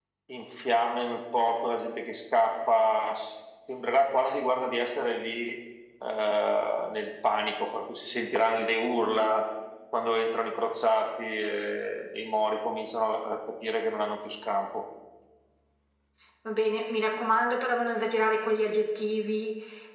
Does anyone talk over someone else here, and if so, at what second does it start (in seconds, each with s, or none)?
none